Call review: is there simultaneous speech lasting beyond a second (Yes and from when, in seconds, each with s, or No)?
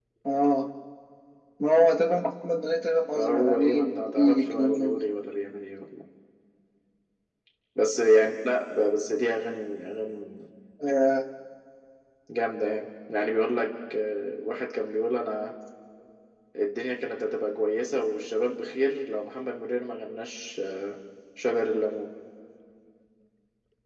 Yes, from 3.2 s